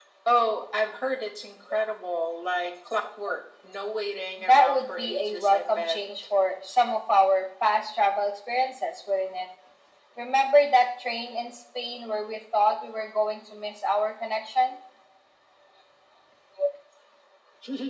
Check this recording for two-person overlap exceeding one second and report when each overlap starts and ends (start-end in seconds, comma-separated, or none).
4.4-6.0